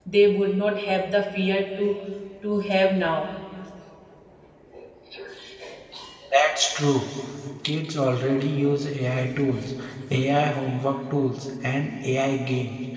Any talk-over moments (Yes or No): No